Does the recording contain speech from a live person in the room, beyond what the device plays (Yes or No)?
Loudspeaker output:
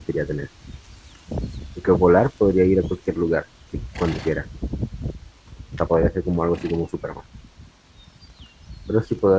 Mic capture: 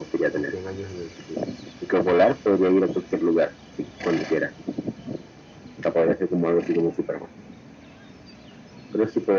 Yes